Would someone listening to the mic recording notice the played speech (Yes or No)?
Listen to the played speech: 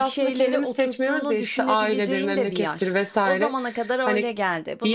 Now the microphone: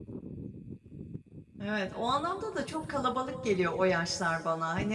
No